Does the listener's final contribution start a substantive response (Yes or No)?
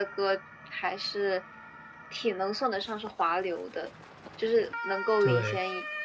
No